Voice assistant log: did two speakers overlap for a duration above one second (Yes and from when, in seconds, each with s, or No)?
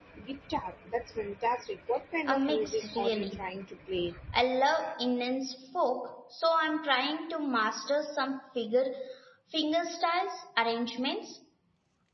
Yes, from 2.3 s